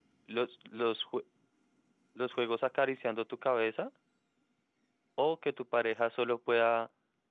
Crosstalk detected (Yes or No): No